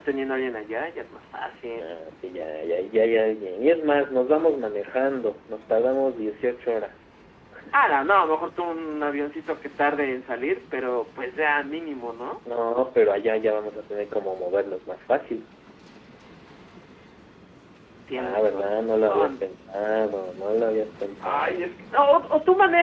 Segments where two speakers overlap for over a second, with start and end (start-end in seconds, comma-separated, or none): 18.1-19.5